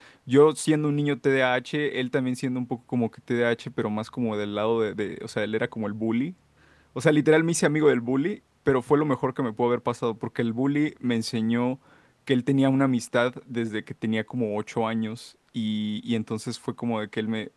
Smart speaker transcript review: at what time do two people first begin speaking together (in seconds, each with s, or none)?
none